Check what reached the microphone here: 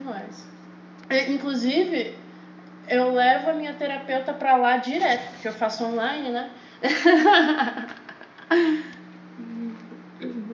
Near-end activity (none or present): present